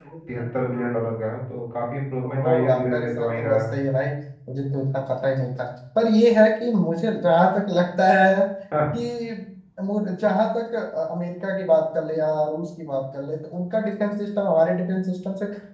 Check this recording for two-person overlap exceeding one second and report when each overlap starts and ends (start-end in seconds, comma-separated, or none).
2.2-3.7